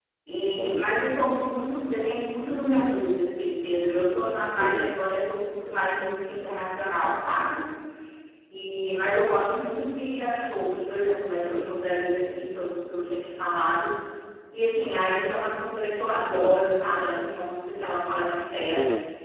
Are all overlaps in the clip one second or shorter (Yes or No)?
Yes